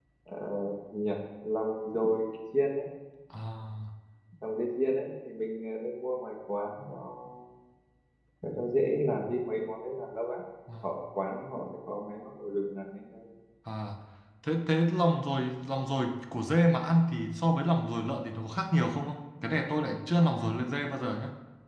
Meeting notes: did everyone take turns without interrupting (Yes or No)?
Yes